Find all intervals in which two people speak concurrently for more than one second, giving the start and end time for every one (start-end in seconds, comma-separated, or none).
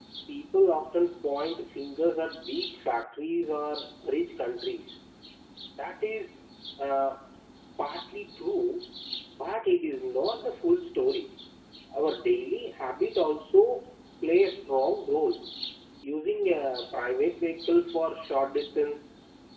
none